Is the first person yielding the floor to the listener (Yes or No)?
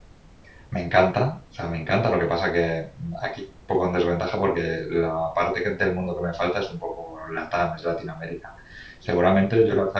No